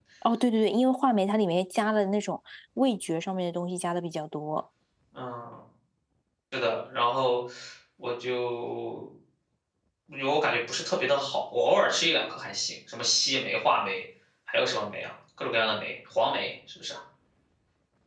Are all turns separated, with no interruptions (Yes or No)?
Yes